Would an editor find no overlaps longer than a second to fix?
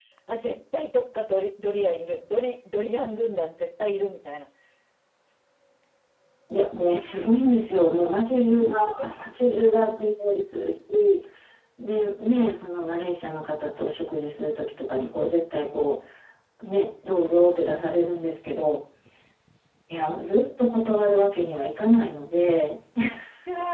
Yes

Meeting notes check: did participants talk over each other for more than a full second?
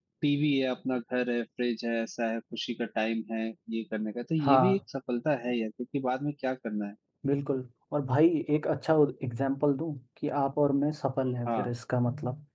No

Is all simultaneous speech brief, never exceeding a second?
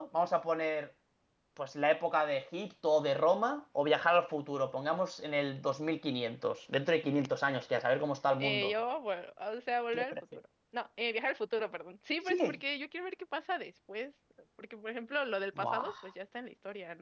Yes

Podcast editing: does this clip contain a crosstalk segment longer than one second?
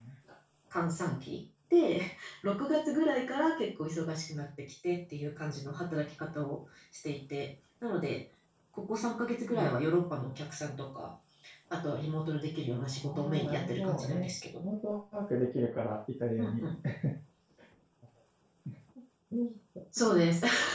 Yes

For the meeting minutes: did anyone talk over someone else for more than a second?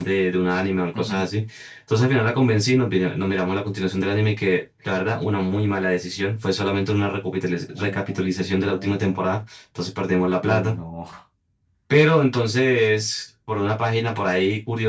Yes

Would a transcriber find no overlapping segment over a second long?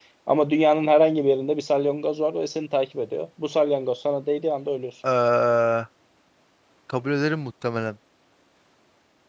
Yes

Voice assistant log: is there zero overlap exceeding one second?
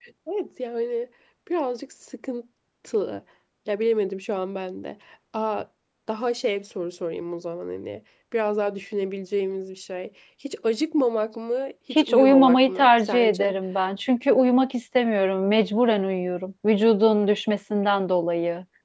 No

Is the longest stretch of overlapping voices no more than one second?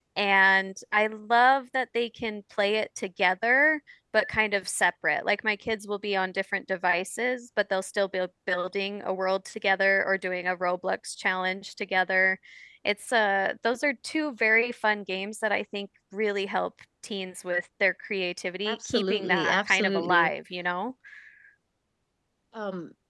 No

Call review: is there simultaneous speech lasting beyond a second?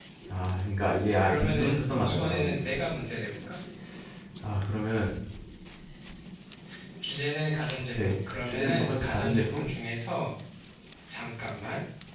Yes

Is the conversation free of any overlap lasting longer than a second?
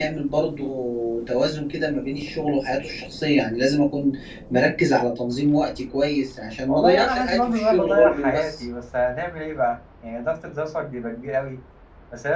No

